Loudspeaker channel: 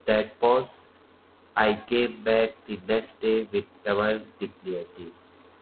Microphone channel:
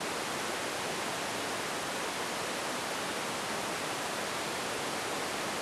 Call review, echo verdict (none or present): none